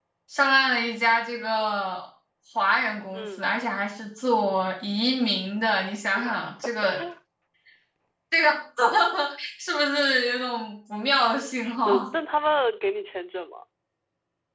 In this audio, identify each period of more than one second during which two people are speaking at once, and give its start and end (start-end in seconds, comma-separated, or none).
none